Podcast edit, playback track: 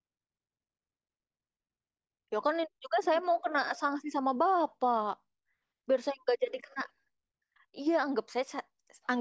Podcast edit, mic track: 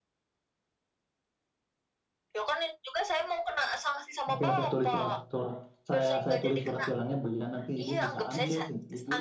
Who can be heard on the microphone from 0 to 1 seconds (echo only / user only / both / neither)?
neither